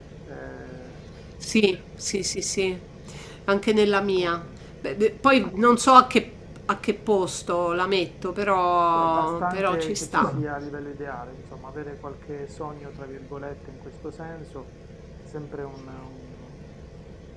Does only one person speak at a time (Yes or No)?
No